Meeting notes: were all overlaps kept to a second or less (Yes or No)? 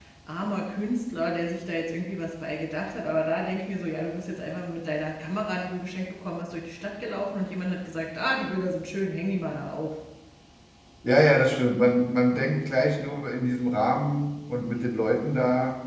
Yes